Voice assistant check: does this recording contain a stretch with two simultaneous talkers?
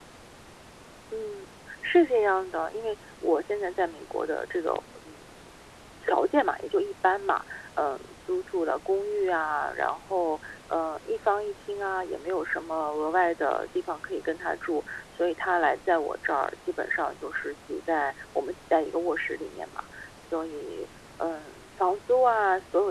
No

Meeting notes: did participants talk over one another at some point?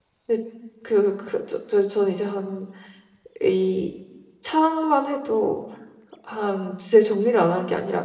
No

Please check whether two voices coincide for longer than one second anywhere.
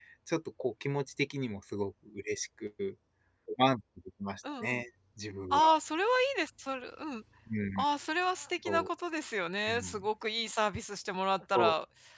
No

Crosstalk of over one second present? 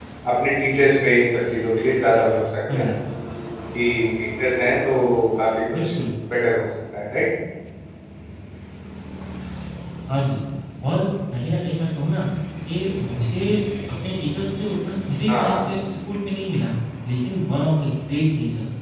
No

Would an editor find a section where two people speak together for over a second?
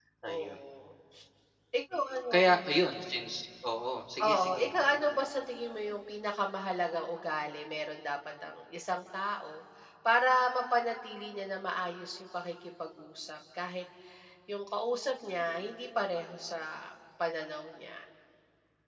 No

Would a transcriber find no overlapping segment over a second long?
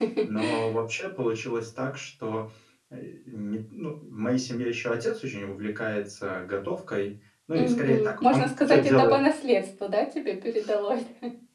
No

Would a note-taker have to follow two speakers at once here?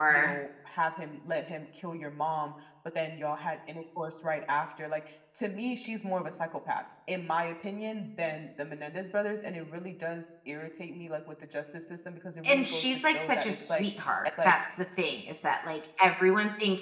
Yes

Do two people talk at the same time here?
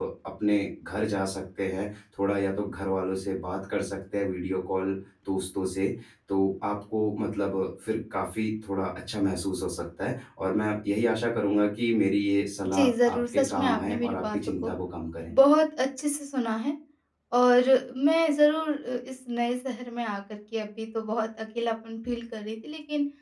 Yes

